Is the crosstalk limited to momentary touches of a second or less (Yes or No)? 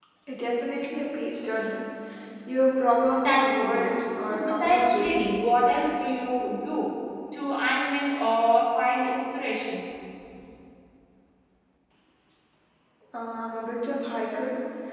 No